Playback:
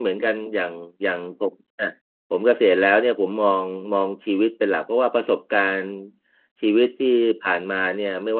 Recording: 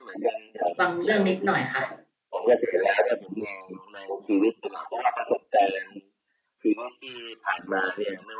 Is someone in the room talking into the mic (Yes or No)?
Yes